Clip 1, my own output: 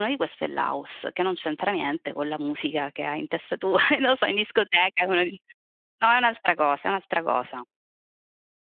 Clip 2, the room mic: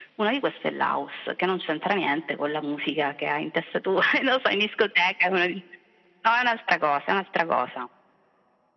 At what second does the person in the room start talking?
none

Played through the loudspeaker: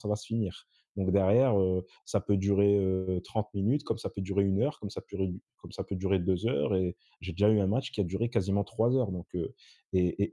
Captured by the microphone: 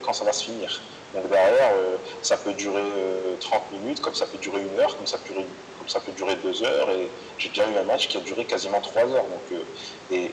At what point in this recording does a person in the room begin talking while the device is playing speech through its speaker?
none

